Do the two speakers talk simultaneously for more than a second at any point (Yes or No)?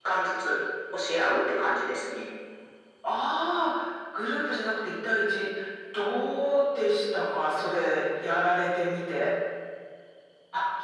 No